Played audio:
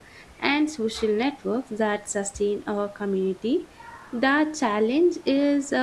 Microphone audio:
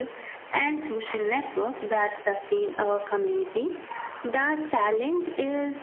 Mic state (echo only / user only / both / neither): echo only